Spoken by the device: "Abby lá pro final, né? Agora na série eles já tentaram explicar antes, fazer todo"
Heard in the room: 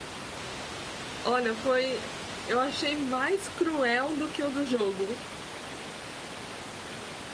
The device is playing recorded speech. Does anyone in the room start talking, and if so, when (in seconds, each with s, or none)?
1.2 s